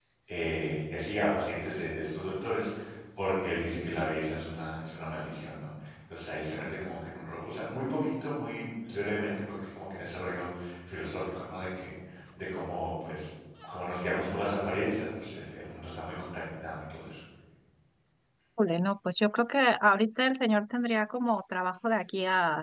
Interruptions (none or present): none